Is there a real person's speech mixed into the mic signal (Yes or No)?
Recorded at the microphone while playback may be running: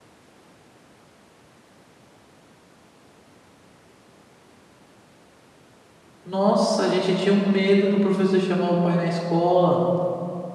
Yes